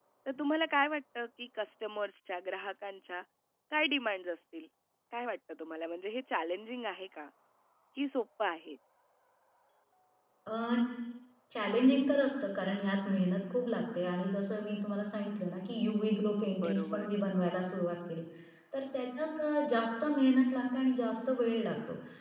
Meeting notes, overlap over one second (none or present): none